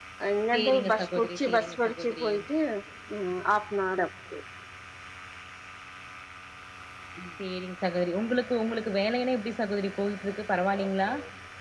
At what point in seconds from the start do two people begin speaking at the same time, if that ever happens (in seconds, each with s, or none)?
0.5 s